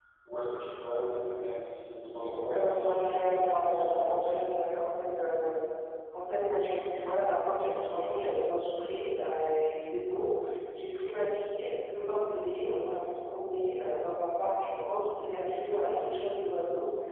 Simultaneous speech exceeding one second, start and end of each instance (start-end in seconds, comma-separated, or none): 2.5-4.4